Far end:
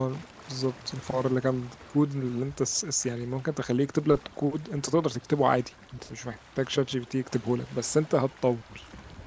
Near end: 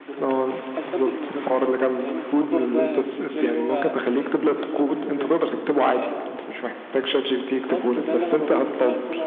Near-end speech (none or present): present